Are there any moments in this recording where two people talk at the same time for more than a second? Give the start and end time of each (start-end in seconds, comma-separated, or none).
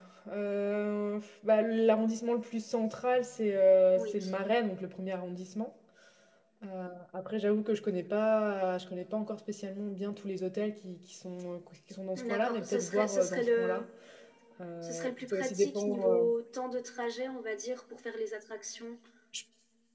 12.2-13.8, 14.8-16.2